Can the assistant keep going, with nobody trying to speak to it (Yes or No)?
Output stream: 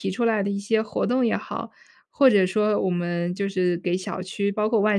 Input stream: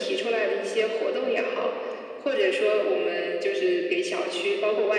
Yes